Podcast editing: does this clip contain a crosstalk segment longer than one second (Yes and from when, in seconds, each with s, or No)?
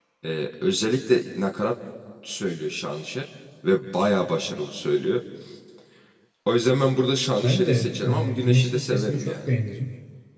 Yes, from 7.4 s